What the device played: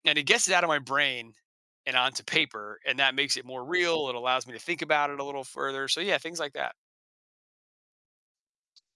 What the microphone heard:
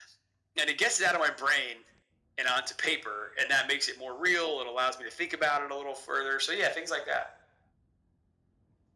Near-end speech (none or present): none